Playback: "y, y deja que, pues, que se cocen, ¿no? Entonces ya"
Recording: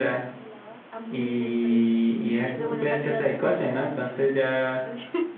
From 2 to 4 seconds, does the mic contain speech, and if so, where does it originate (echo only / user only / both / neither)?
both